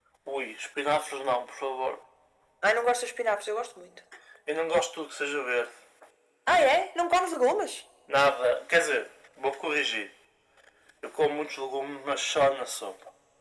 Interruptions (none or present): none